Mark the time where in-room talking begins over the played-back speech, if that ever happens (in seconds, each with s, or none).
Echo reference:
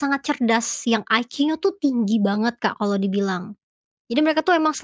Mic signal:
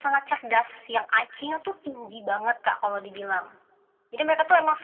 none